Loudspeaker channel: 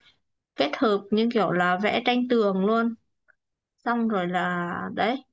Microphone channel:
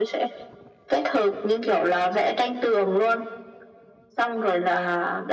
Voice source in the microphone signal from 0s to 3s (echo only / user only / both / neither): echo only